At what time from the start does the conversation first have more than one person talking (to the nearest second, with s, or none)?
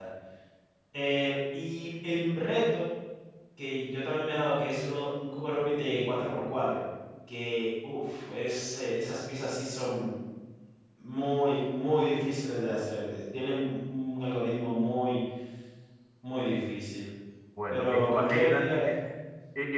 18 s